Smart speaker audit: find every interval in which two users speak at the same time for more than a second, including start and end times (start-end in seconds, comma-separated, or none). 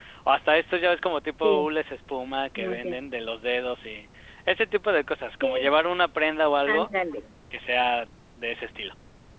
none